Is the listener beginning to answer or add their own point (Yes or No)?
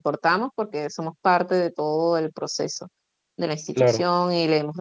No